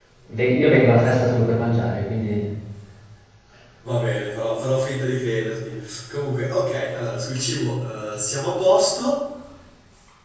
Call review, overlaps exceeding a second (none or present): none